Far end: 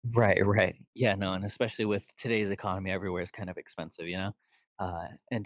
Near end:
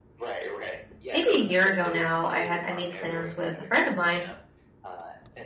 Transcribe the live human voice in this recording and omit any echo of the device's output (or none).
maybe a year ago now, I had I made plans with a friend of mine